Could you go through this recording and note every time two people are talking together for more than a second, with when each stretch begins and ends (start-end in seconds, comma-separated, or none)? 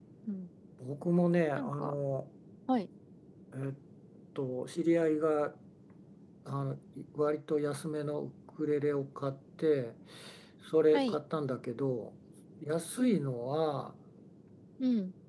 none